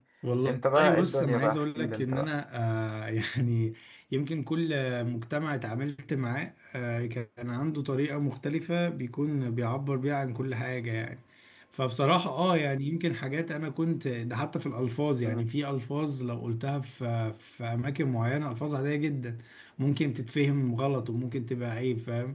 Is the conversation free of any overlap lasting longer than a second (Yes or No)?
No